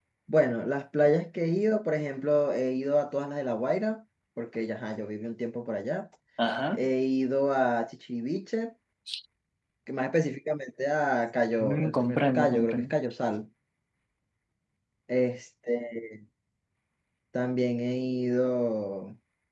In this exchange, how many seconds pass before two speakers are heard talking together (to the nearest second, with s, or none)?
12 s